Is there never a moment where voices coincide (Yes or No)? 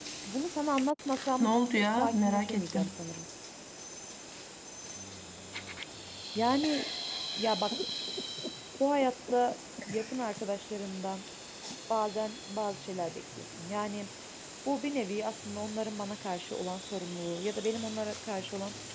No